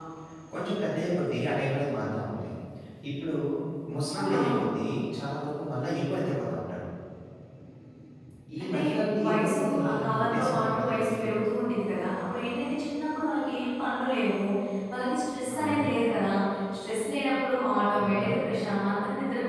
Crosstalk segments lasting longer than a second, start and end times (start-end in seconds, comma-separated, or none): 9.2-11.1